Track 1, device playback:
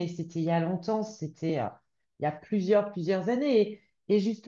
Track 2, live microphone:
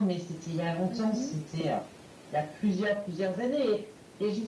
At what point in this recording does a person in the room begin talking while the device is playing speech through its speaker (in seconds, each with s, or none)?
0.9 s